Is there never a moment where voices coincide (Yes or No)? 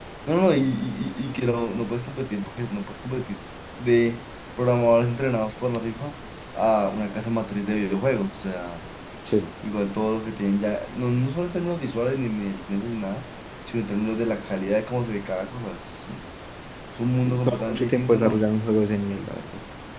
No